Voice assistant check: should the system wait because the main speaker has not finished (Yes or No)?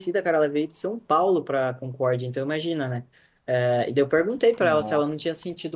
Yes